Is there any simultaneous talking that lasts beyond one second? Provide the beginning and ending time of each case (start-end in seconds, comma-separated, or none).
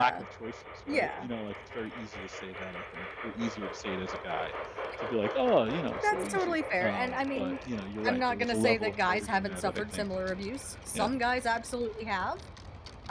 6.0-7.5, 8.1-10.0